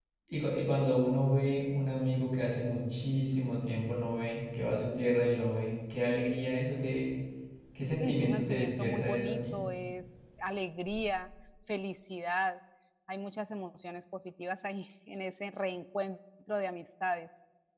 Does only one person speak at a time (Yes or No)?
No